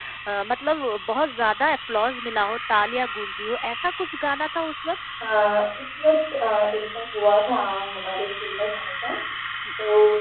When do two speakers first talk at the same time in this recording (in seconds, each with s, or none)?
none